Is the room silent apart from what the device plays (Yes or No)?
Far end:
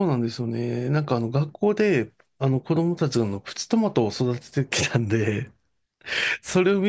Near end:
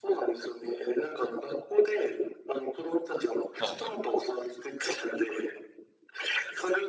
No